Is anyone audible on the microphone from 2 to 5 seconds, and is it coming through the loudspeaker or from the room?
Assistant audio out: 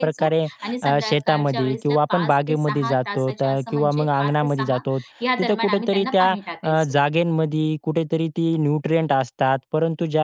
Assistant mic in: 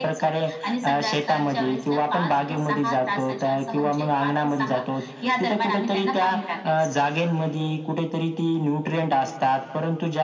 echo only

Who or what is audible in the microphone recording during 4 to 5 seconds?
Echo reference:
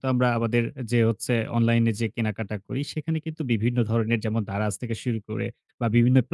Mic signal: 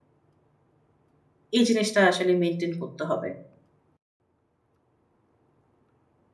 neither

